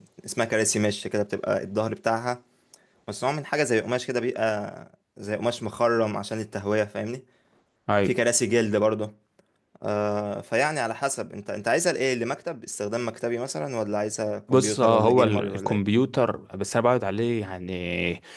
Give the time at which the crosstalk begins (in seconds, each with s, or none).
14.5 s